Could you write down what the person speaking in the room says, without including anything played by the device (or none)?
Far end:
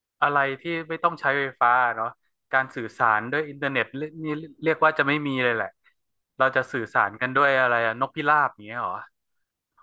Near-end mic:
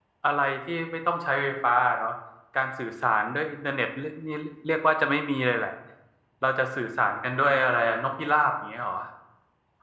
none